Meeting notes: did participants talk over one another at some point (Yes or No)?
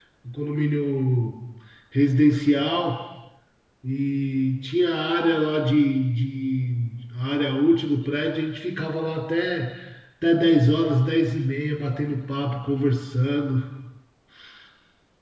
No